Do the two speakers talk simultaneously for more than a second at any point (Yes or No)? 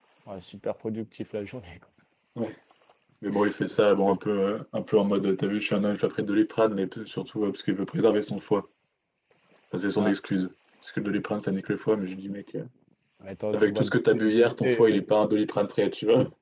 Yes